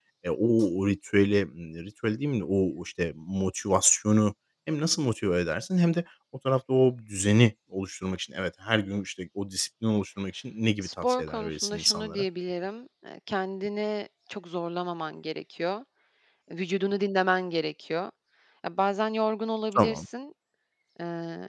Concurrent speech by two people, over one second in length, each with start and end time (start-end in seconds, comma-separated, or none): 10.8-12.2